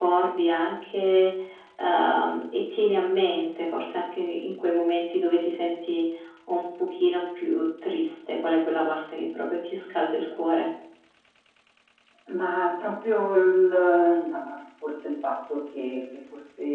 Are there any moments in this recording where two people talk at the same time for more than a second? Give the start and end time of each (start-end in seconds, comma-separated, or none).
none